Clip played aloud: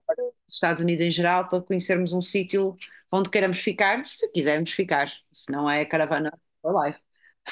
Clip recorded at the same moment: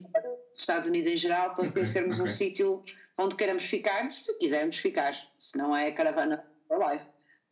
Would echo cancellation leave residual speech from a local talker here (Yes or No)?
Yes